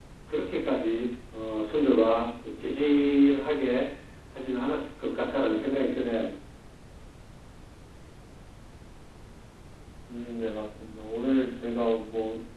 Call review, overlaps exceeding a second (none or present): none